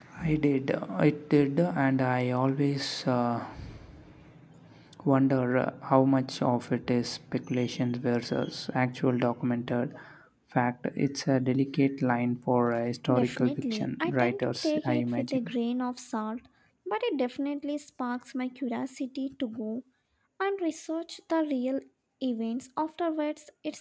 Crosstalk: present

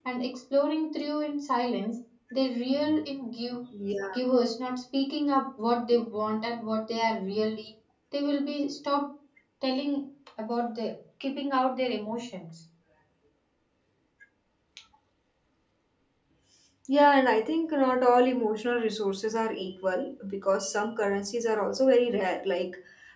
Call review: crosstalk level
none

